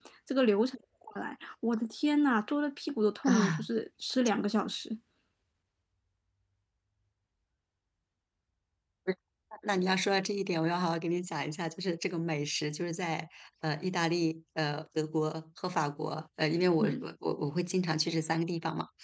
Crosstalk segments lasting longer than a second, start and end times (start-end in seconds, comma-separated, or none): none